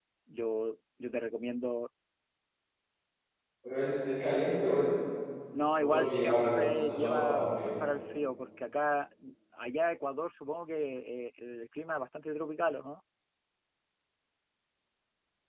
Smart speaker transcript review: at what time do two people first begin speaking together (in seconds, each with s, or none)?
5.8 s